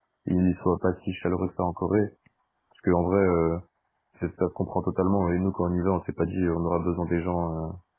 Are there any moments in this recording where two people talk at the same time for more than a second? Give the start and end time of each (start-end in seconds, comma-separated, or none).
none